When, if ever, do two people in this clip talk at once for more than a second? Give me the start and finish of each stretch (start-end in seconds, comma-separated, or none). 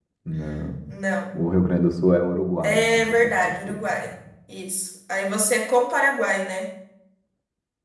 2.6-4.1